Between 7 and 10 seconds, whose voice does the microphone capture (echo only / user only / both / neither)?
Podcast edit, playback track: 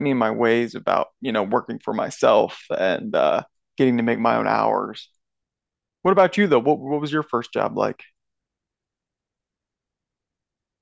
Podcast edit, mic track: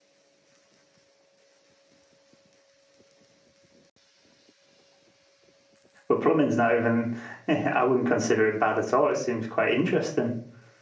user only